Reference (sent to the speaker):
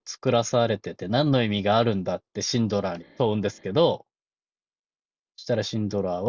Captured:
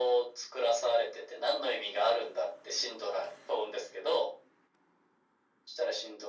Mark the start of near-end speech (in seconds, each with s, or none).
none